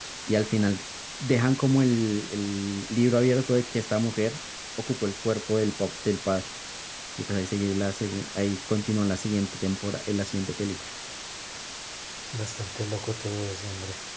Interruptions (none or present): none